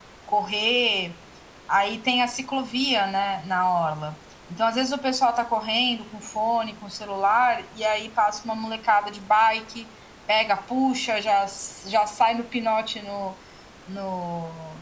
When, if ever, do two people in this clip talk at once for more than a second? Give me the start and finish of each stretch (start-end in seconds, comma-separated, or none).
none